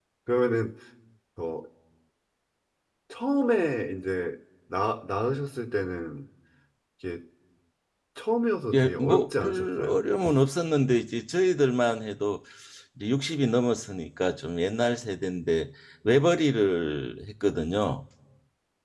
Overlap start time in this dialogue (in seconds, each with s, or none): 8.7 s